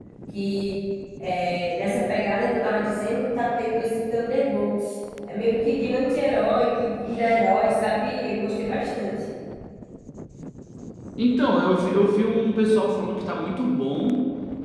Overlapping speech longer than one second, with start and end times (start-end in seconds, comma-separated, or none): none